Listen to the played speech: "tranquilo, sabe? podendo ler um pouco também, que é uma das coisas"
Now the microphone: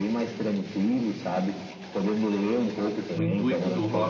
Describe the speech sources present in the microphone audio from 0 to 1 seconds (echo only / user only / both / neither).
echo only